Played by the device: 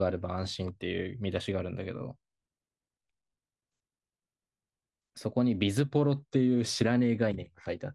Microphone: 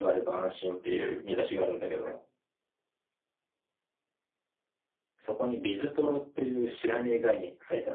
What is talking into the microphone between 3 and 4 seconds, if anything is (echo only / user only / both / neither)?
neither